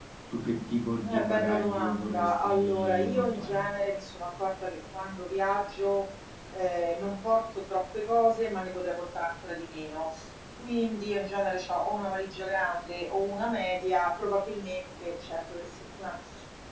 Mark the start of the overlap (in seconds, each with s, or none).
1.1 s